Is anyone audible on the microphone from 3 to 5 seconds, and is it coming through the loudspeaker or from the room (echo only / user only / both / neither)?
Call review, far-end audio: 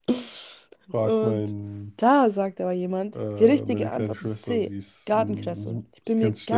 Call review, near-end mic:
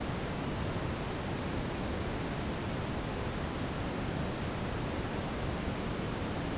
neither